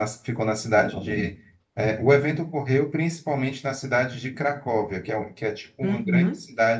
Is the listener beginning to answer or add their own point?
No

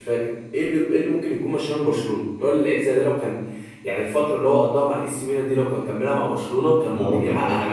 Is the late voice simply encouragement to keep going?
No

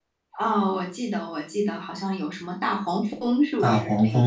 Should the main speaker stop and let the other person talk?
Yes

